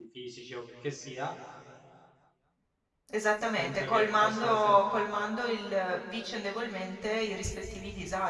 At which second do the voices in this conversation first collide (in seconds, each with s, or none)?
3.6 s